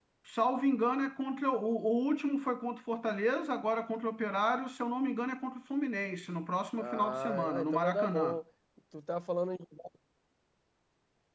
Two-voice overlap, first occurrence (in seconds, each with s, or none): 6.8 s